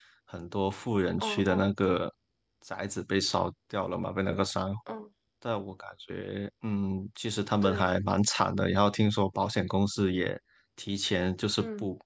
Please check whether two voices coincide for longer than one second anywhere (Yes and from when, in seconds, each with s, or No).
No